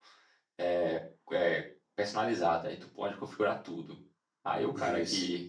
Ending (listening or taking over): listening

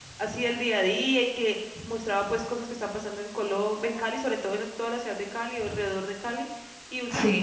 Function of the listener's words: listening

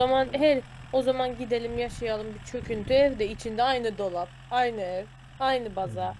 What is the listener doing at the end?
listening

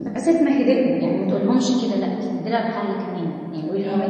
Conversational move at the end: listening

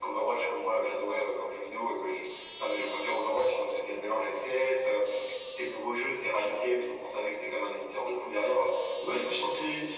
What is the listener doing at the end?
taking over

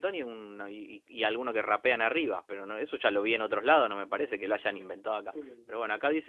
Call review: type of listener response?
taking over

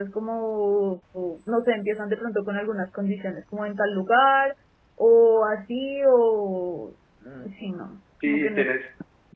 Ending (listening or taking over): taking over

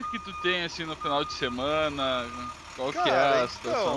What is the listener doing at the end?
taking over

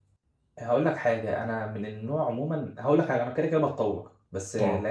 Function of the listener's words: listening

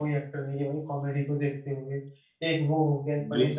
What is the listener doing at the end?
listening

